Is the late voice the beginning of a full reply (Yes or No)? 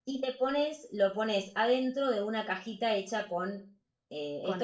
No